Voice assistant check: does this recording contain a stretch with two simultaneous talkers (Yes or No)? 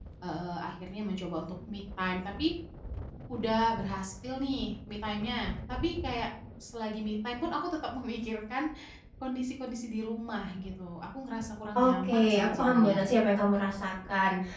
Yes